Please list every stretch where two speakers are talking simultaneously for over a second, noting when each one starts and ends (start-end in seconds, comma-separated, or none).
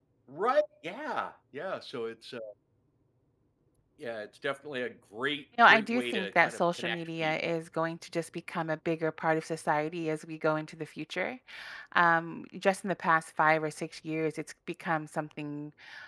5.6-7.5